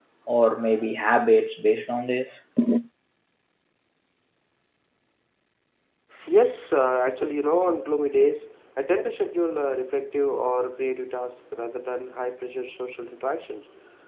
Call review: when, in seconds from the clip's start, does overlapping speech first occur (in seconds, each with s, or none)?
none